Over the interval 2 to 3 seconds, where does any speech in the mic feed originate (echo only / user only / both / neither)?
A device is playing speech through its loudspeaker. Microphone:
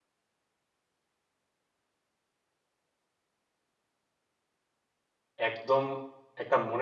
neither